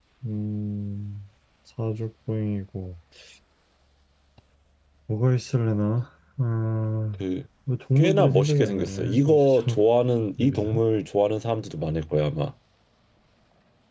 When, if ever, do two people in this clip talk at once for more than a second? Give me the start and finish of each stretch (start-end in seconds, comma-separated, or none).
8.0-9.8